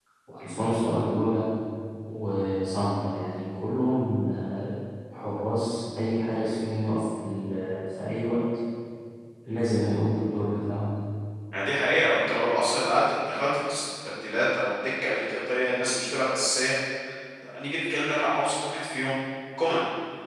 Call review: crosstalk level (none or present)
none